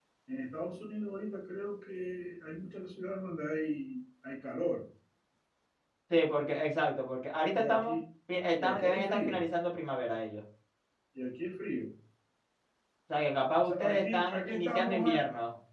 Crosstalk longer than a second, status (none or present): present